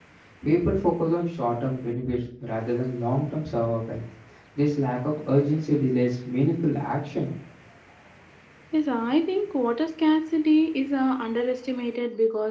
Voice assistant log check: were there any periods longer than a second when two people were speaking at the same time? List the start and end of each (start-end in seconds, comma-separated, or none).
none